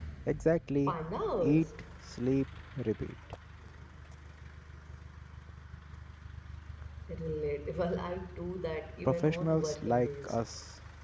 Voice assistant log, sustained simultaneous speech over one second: present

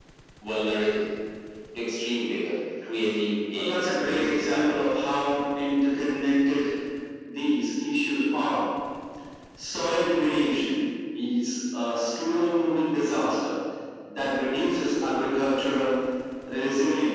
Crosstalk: present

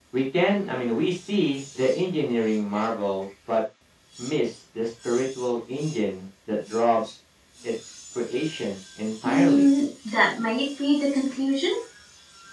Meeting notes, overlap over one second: none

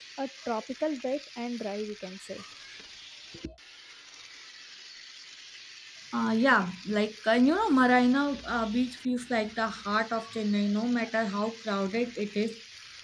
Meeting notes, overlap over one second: none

